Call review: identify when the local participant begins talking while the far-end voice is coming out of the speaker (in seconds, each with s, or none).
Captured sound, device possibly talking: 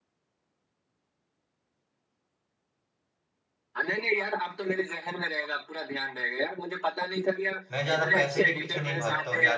7.7 s